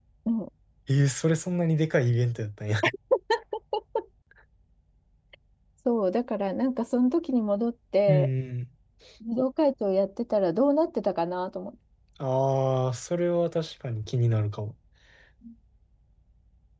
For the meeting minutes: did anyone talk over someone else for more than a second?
No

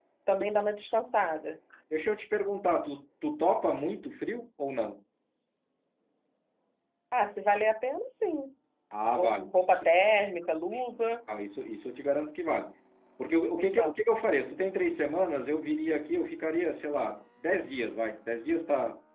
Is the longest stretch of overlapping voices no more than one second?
Yes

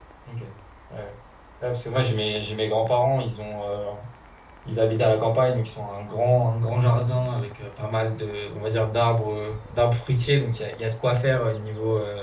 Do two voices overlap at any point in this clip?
No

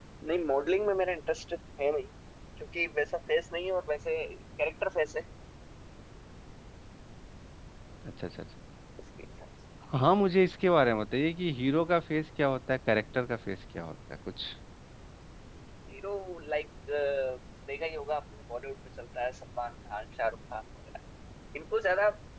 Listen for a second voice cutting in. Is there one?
No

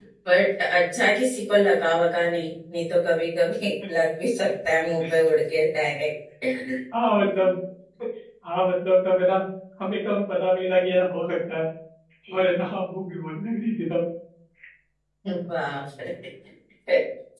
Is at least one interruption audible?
No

